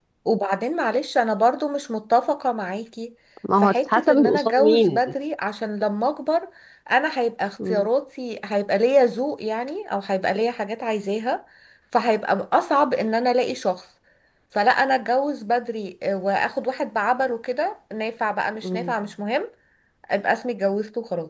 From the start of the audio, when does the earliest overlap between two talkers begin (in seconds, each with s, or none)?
3.6 s